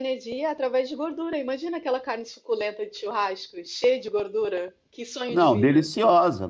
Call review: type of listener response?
taking over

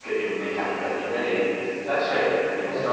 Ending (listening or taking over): taking over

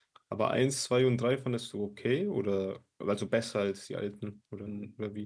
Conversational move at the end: taking over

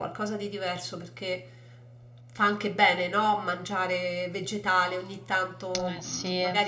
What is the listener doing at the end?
listening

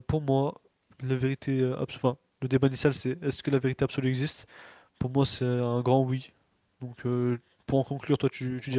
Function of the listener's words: taking over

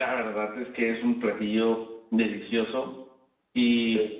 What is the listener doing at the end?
listening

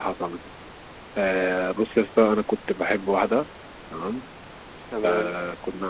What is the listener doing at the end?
listening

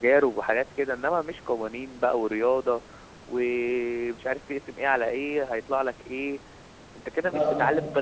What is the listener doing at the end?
listening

